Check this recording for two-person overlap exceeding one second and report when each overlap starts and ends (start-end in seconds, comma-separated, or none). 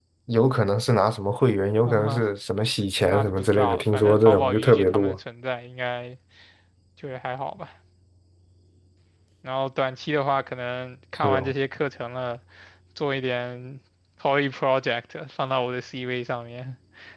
3.0-5.2